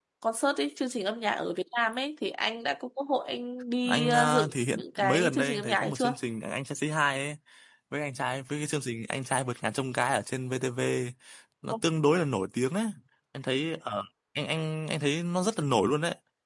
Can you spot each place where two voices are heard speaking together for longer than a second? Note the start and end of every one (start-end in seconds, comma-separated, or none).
3.9-6.1